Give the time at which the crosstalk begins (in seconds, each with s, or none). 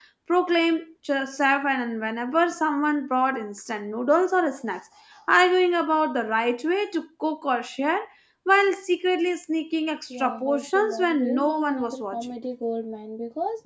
10.1 s